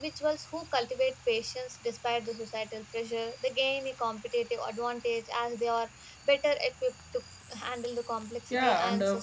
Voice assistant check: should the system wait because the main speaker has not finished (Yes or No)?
No